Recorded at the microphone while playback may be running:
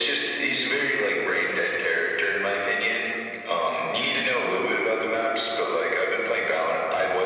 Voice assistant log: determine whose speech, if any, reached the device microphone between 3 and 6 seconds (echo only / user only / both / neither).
echo only